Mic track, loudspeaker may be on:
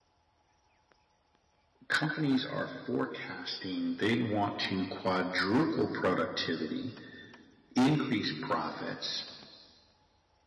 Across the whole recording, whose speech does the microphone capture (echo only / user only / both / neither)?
user only